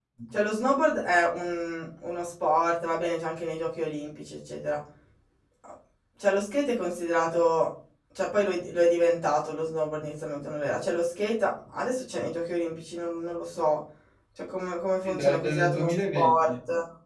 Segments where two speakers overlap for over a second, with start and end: 15.0-16.5

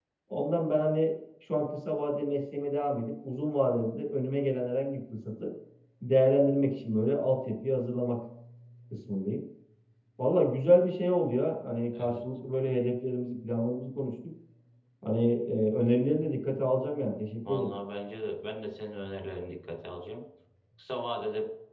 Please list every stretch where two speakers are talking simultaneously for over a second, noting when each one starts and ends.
none

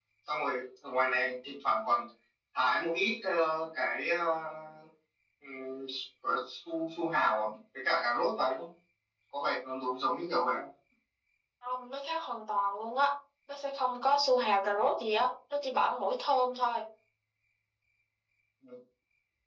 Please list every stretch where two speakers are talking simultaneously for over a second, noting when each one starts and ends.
none

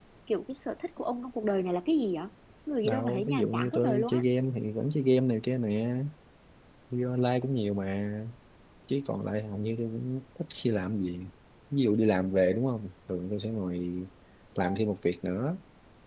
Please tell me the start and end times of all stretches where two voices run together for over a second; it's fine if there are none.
2.8-4.2

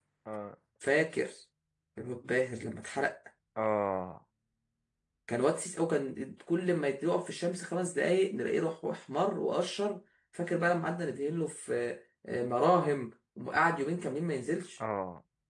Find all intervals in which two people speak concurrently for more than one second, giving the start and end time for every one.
none

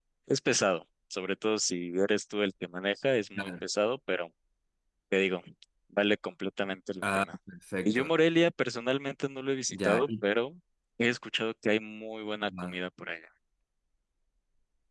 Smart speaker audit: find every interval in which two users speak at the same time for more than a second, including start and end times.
none

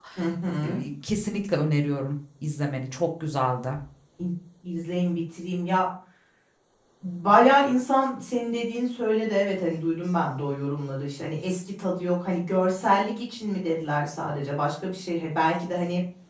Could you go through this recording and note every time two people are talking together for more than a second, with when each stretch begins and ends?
none

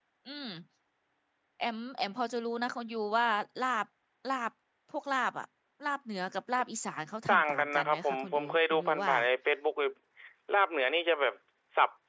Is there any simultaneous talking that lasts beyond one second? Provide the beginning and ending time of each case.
7.3-9.1

